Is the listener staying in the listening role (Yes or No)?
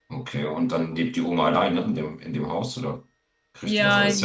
No